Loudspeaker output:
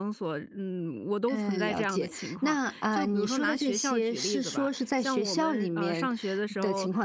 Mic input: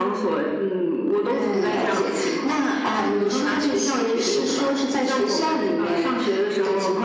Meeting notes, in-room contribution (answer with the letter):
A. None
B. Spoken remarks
A